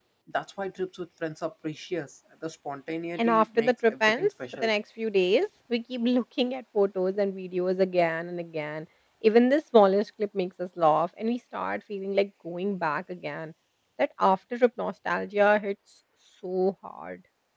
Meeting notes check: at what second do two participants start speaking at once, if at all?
3 s

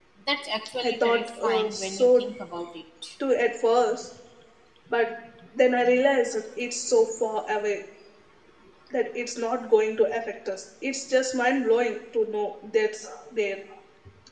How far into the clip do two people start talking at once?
1 s

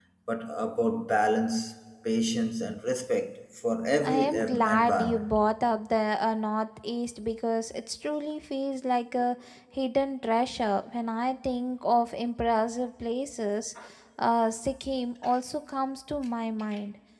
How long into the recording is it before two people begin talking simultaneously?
4 s

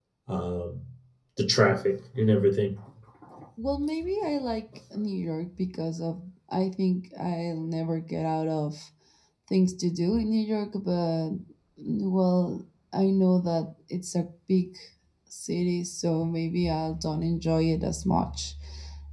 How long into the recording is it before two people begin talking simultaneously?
none

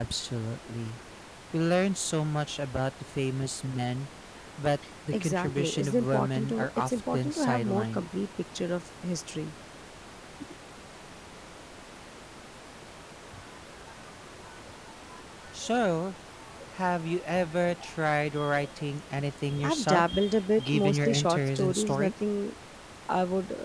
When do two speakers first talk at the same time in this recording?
5 s

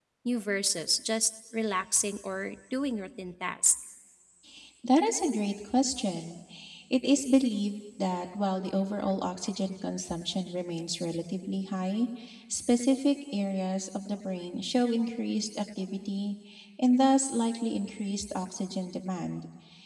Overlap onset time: none

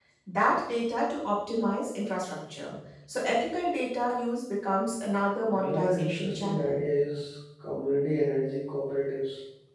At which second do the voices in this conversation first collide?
6 s

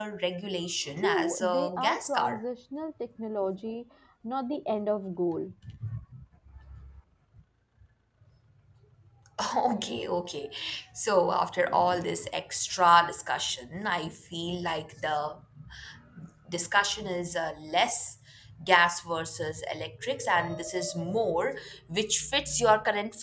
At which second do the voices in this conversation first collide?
1 s

